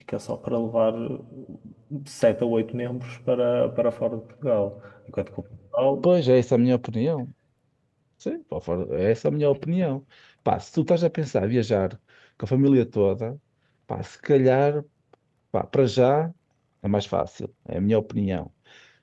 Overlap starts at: none

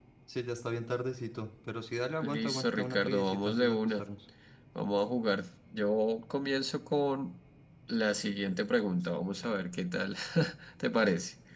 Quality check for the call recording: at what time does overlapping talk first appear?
2.2 s

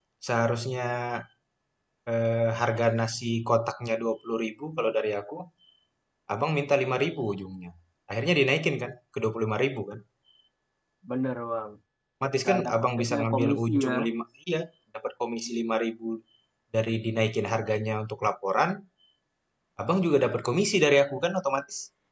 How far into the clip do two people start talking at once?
12.4 s

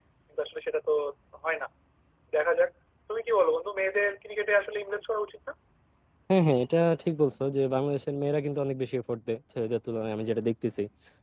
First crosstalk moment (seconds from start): none

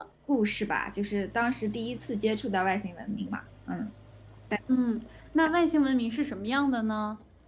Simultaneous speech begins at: none

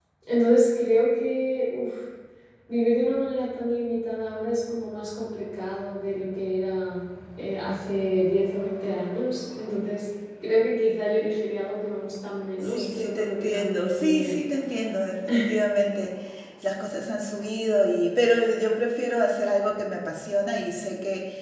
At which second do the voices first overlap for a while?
12.7 s

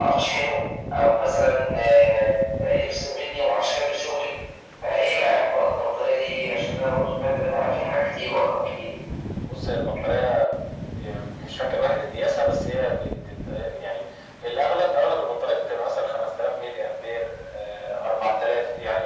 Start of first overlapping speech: none

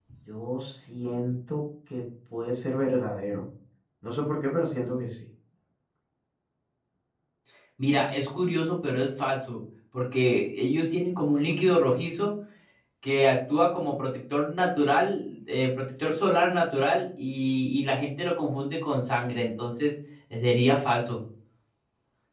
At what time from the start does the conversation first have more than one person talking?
none

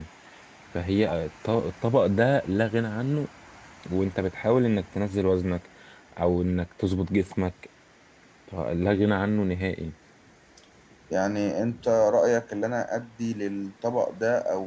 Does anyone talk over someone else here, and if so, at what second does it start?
none

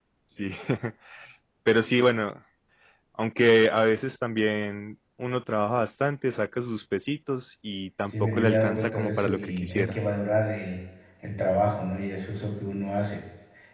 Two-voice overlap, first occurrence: 8.1 s

